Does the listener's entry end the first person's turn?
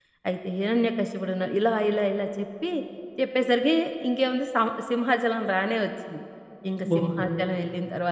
No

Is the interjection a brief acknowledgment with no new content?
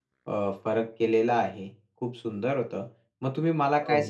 Yes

